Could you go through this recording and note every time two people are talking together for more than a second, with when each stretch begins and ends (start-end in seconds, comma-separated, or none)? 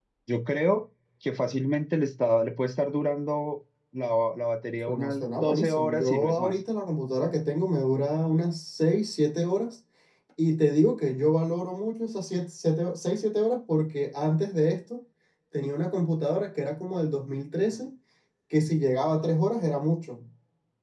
4.9-6.6